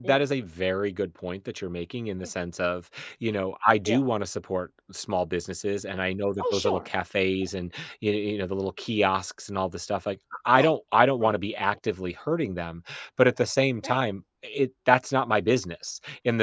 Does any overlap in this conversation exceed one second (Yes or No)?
No